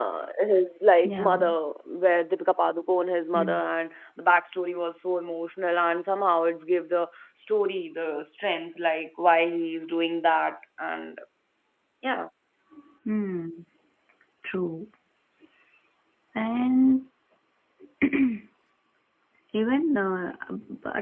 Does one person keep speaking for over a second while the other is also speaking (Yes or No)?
No